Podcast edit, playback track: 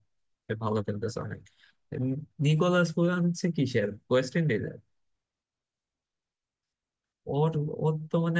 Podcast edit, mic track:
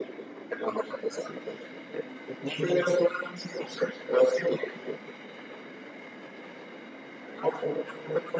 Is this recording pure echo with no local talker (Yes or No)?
Yes